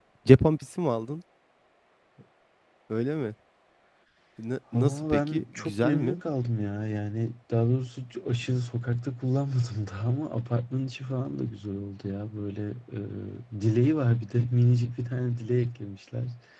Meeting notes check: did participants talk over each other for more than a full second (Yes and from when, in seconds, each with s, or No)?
Yes, from 4.7 s